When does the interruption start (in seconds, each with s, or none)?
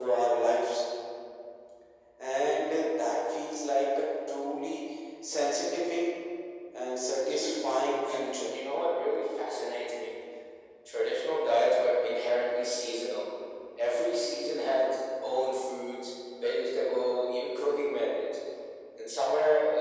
7.3 s